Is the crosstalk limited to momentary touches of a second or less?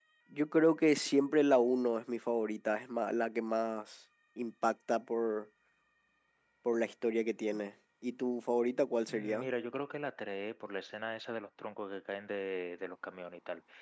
Yes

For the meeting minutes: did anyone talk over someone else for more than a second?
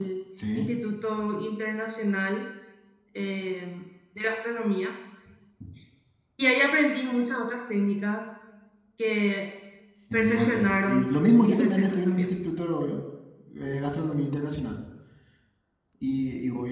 Yes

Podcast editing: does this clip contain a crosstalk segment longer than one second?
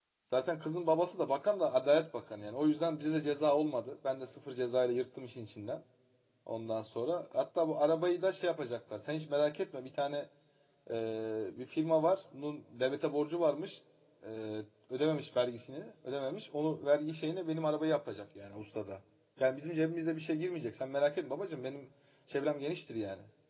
No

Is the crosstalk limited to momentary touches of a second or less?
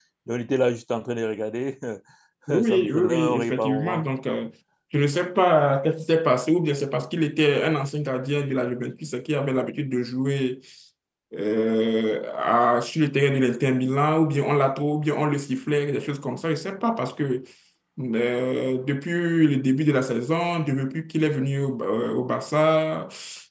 No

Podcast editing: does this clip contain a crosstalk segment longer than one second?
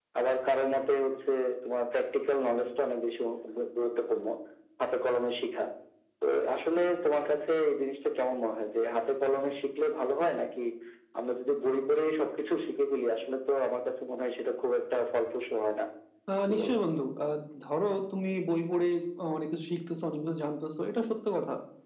No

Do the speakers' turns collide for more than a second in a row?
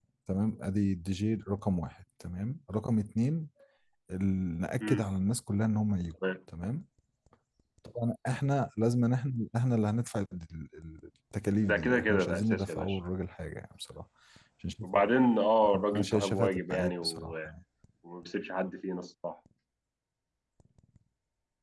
Yes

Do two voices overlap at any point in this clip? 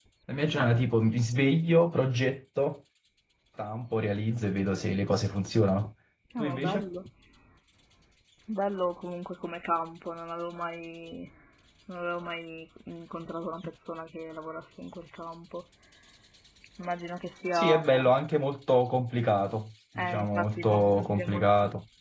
Yes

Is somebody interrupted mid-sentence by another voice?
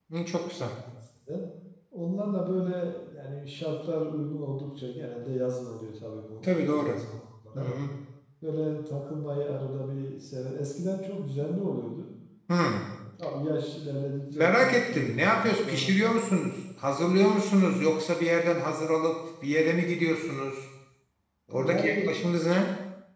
Yes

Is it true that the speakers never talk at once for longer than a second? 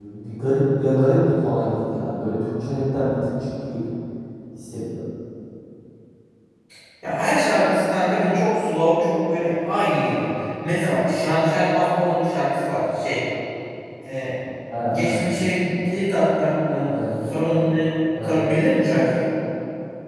Yes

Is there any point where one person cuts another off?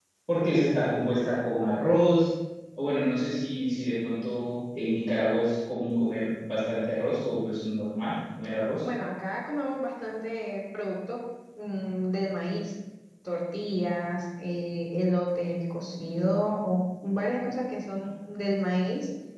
No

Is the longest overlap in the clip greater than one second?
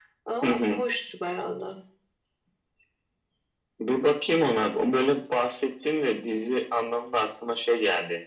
No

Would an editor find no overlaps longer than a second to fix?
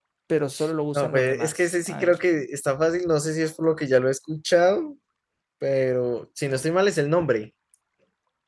No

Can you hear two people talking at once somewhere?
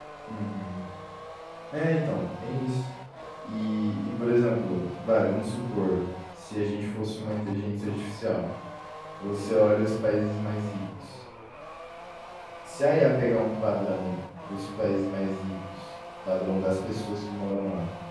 No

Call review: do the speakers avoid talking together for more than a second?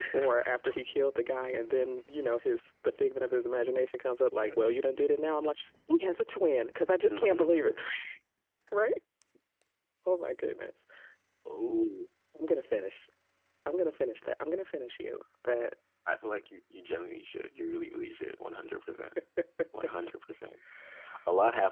Yes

